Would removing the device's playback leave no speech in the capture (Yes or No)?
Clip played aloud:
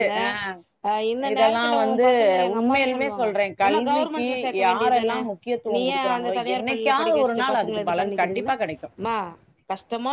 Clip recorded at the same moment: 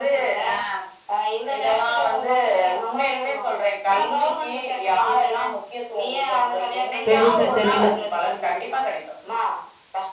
No